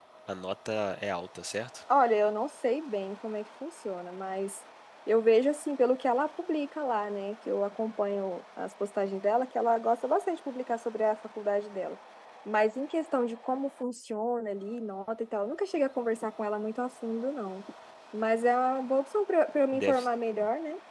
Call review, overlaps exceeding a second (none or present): none